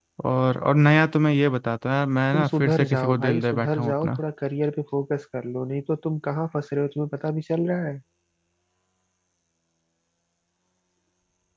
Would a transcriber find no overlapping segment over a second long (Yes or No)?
No